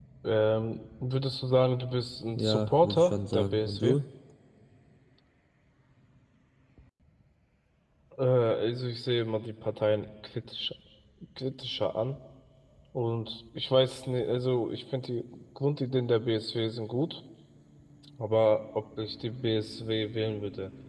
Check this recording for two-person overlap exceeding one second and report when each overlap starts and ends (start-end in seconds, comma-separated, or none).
2.4-4.0